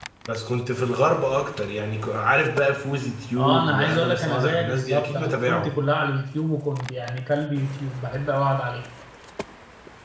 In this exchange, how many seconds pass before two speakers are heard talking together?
3.4 s

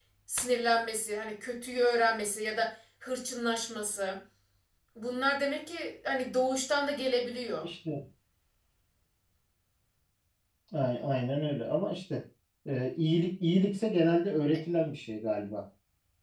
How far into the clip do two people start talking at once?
none

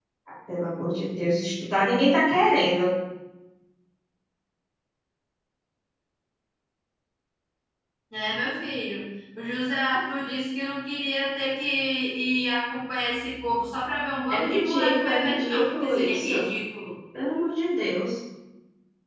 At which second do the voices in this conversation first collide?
14.3 s

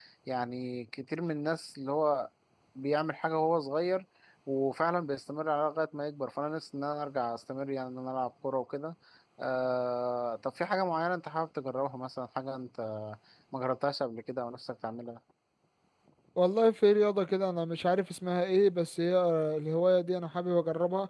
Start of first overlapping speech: none

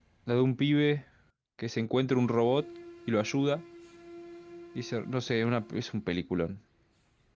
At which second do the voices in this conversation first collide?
none

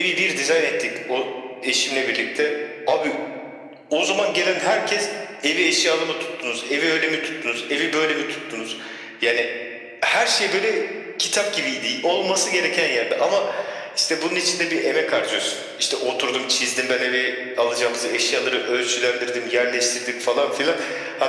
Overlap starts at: none

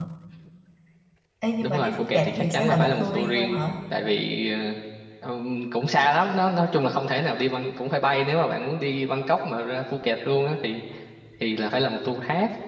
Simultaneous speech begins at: 1.6 s

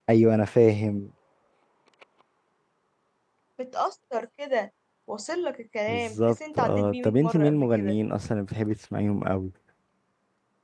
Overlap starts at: 5.9 s

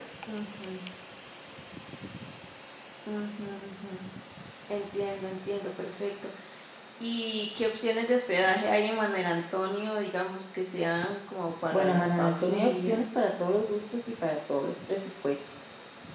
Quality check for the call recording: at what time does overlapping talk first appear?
11.7 s

